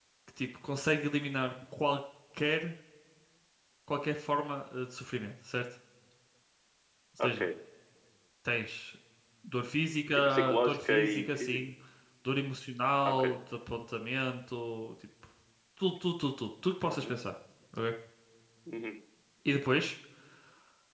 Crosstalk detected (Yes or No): Yes